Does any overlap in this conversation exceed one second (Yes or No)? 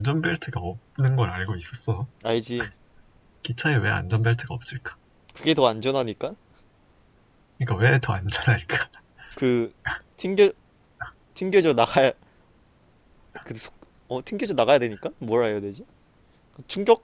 No